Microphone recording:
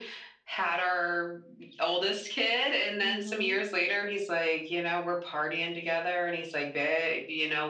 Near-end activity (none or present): present